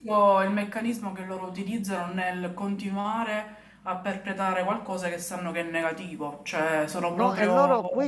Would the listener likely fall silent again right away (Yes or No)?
No